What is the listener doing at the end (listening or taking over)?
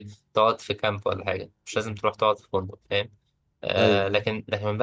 listening